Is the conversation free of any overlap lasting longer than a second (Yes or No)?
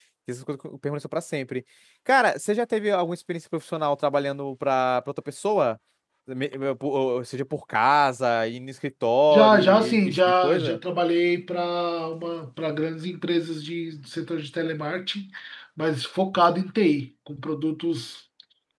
No